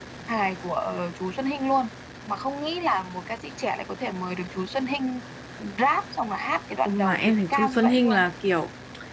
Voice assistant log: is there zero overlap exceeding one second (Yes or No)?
No